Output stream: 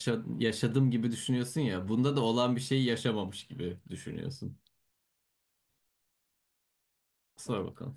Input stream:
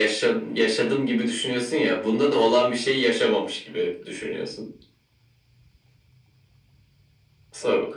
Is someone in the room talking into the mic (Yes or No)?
No